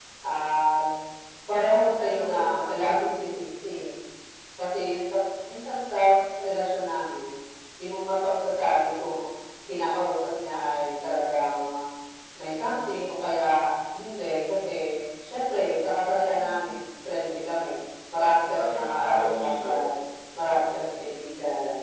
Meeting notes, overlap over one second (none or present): present